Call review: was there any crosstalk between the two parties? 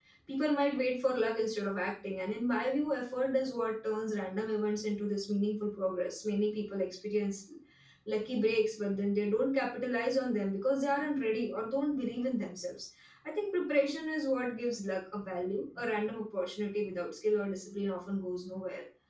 No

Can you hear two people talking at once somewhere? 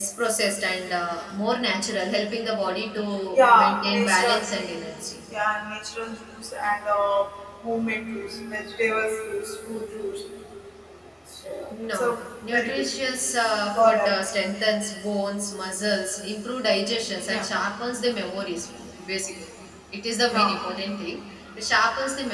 Yes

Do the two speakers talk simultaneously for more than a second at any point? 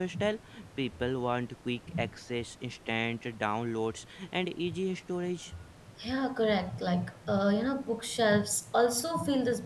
No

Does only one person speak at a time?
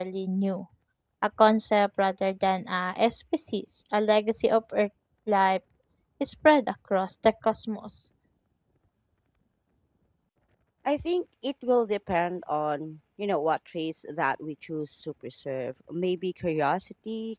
Yes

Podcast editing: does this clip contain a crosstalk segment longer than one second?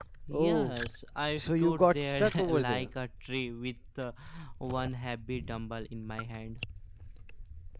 Yes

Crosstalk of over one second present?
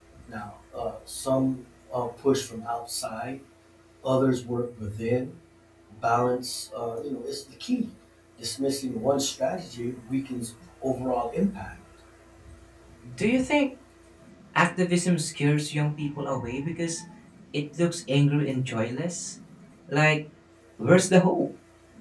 No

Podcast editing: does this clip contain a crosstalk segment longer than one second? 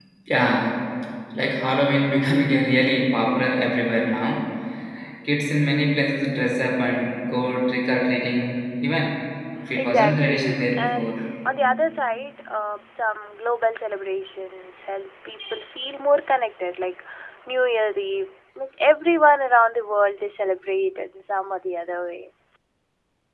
Yes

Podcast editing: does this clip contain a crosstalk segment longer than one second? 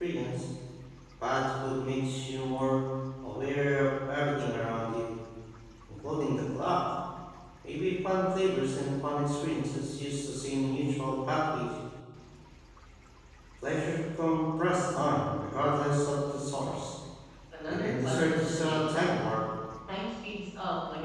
Yes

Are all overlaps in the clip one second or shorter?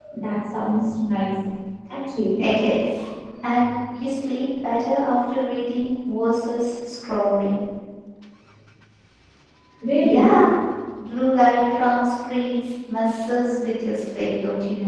Yes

